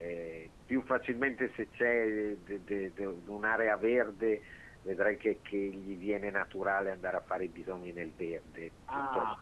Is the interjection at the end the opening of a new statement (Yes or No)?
Yes